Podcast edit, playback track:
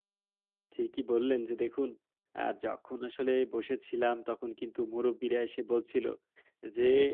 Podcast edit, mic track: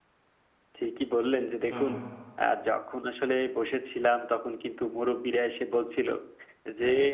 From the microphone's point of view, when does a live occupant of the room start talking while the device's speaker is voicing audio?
2 s

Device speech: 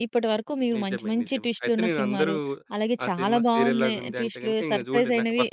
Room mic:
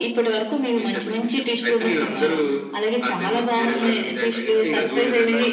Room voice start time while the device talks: 4 s

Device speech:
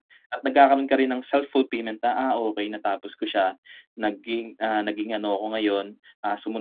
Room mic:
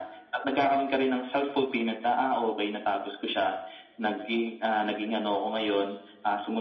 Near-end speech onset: none

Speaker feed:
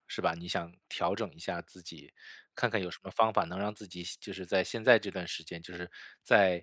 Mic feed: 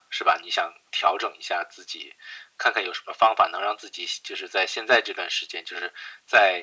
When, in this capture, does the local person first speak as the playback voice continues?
none

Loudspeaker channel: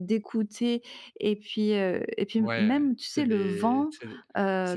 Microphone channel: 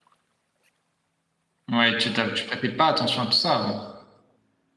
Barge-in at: 2 s

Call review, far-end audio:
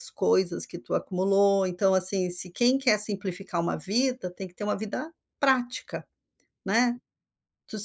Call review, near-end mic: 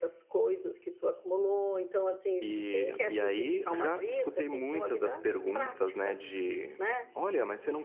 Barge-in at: 2 s

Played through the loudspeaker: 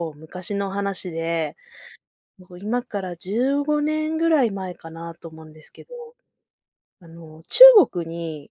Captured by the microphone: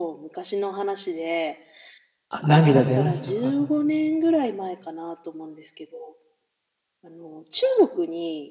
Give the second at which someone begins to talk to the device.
2 s

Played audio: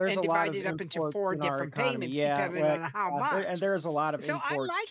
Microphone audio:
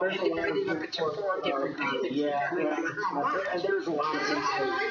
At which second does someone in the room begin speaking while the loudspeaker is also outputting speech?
4 s

